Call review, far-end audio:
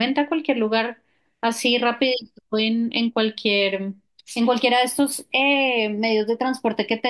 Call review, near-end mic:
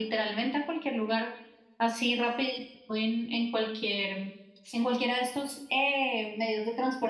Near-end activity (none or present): none